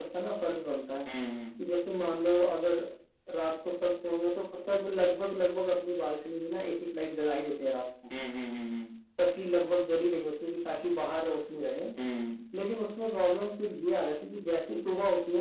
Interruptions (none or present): none